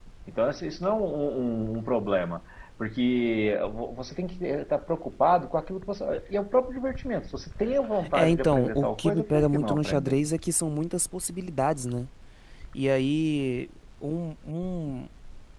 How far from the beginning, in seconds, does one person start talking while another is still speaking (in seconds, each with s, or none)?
8.0 s